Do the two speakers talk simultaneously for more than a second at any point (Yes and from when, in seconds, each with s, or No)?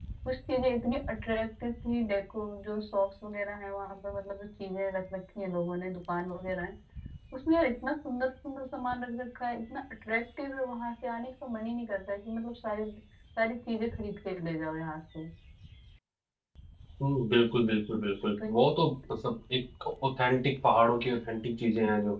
No